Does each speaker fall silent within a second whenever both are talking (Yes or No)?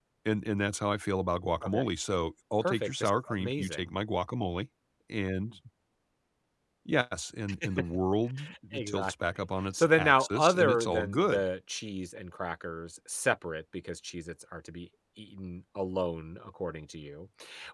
No